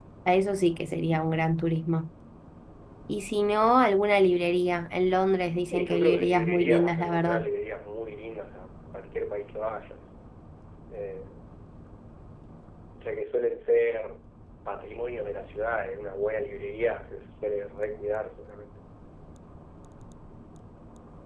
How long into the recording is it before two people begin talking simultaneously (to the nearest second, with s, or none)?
6 s